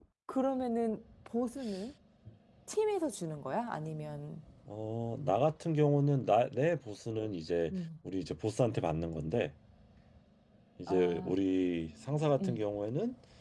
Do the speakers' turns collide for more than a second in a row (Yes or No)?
No